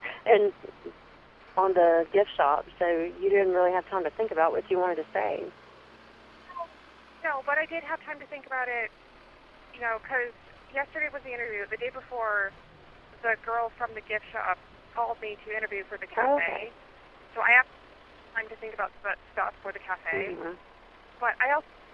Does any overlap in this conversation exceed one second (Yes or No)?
No